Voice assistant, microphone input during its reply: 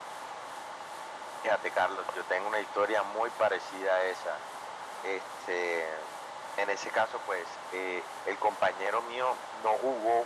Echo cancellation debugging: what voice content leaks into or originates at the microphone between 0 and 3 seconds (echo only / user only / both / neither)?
echo only